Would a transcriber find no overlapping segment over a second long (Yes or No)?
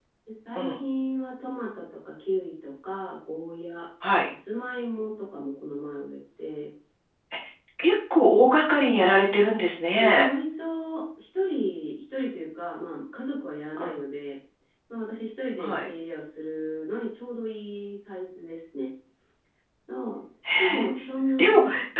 Yes